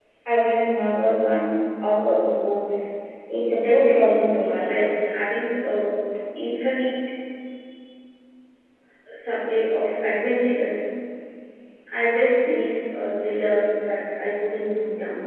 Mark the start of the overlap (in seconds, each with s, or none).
3.5 s